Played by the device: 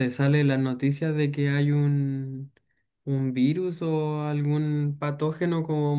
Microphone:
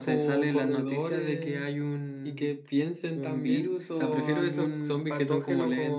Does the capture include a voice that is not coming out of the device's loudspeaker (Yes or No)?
Yes